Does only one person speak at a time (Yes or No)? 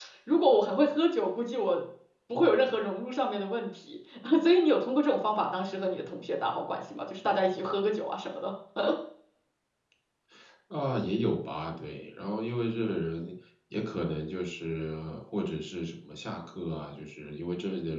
Yes